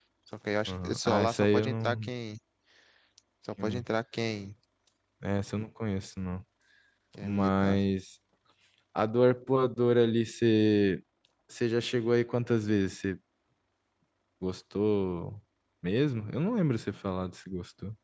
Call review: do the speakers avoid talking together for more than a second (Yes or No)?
No